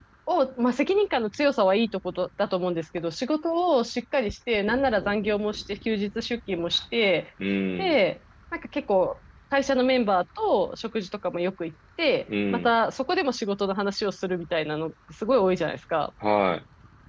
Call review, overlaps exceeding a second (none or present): none